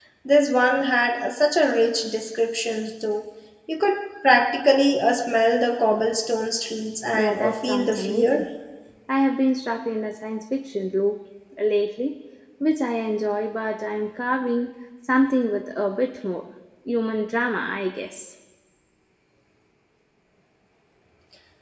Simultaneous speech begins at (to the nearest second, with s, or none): 7 s